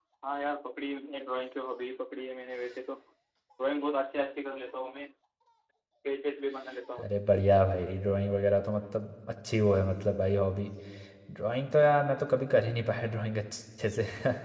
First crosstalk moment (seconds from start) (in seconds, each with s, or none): none